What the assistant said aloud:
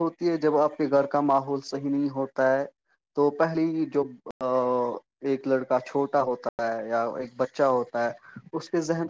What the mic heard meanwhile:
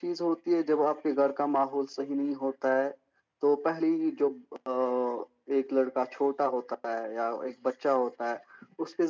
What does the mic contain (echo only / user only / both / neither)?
echo only